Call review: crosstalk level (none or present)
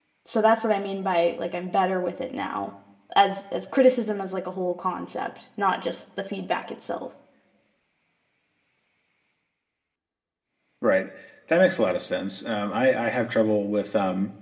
none